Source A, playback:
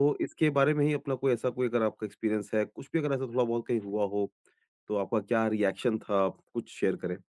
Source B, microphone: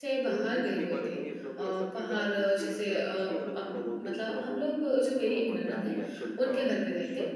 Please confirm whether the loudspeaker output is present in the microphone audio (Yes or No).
Yes